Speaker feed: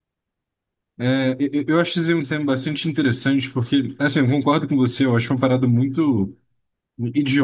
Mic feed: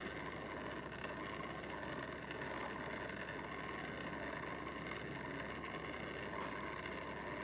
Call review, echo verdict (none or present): none